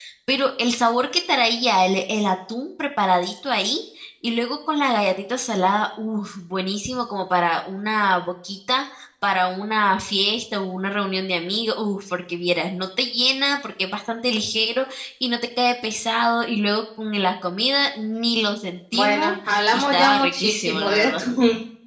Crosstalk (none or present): present